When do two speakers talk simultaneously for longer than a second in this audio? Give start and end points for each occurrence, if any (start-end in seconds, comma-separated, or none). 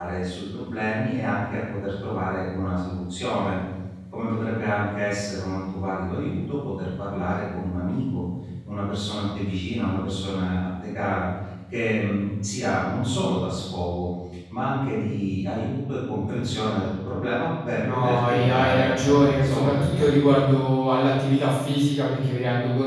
17.8-20.2